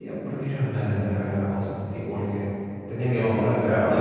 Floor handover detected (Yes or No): Yes